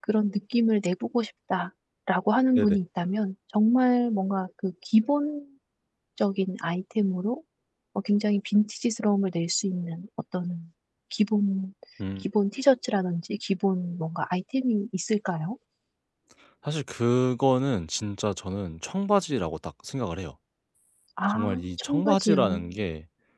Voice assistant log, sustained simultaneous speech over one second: present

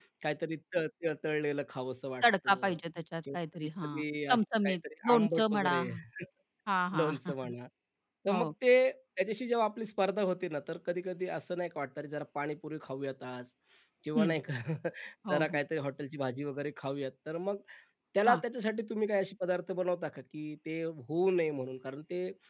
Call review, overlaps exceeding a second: present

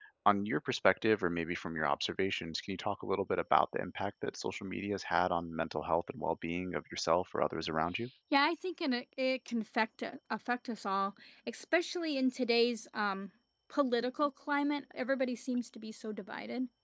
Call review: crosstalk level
none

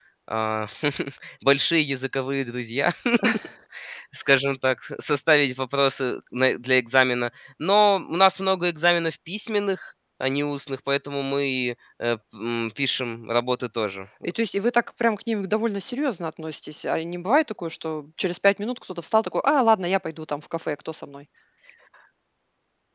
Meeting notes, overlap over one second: none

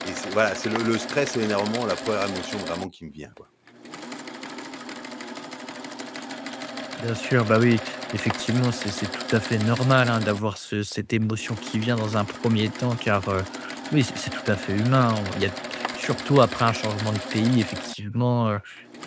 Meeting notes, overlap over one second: none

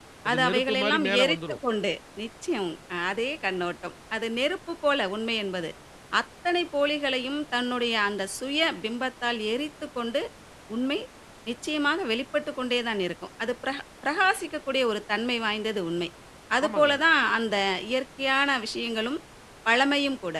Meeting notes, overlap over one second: present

